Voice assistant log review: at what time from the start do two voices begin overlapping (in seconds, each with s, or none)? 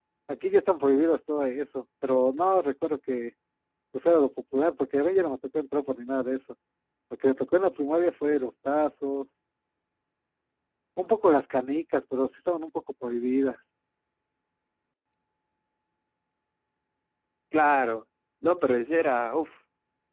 none